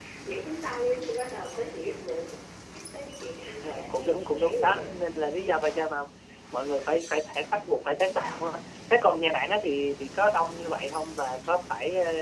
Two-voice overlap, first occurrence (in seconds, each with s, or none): 3.6 s